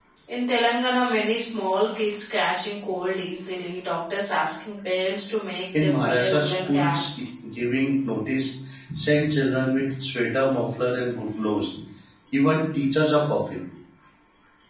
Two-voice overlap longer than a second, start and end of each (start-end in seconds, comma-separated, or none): 5.8-7.2